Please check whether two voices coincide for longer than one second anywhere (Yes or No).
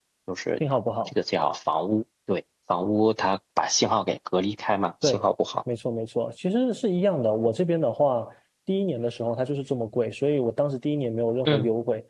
No